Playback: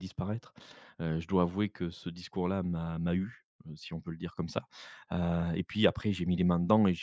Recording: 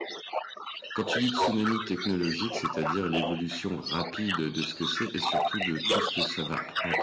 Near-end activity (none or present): present